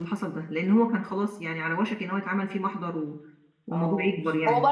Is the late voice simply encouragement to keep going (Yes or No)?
No